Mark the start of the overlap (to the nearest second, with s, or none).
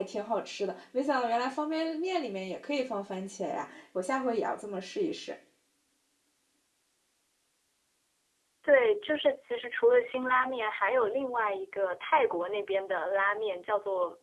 none